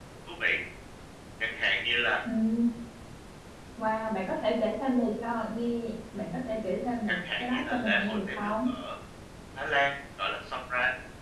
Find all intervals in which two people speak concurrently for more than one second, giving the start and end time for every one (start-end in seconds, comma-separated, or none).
7.1-8.5